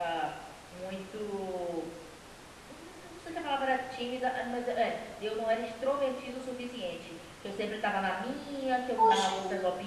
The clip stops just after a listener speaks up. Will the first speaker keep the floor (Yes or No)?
No